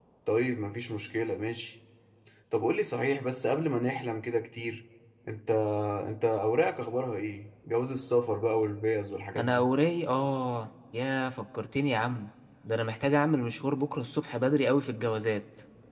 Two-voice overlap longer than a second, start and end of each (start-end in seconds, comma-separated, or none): none